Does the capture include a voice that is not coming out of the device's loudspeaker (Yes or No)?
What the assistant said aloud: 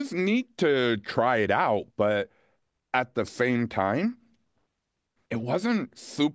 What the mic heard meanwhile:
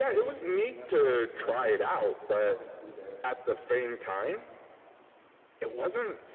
Yes